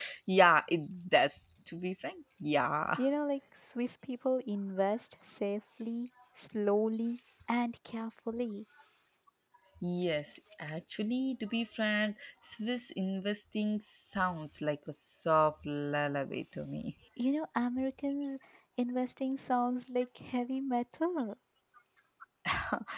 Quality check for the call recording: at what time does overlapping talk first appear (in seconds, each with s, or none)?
none